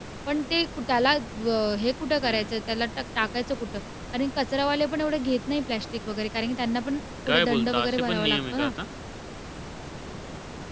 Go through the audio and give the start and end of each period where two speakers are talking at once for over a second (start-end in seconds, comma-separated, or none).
7.3-8.7